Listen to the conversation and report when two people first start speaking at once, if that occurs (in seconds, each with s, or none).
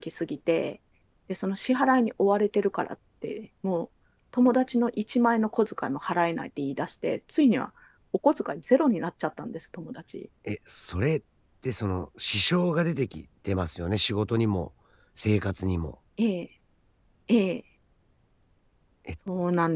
none